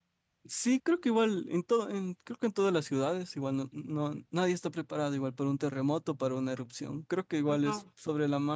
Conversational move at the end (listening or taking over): listening